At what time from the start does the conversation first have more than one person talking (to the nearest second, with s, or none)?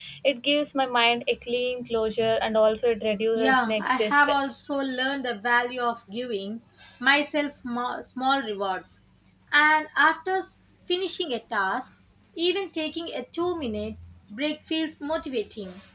3 s